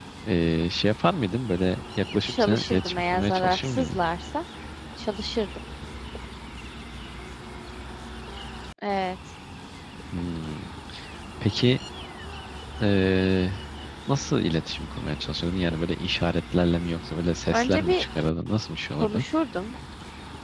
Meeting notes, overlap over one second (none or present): present